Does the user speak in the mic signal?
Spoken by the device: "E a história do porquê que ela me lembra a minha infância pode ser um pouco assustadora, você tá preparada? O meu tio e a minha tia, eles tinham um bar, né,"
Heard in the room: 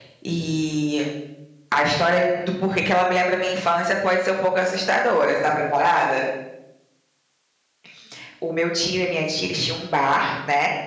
No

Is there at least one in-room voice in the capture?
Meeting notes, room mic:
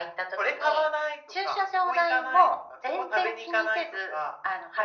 No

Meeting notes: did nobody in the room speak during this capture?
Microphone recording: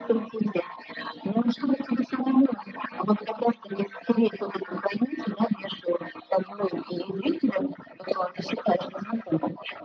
Yes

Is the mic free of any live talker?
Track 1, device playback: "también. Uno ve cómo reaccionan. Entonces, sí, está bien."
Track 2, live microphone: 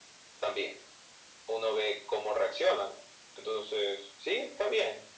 Yes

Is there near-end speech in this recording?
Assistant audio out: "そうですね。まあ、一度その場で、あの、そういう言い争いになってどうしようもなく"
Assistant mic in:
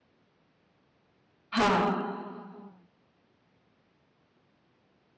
Yes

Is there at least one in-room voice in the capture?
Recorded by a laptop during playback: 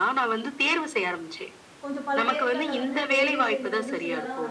Yes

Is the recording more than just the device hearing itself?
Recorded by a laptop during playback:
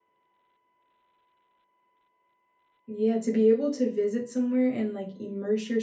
Yes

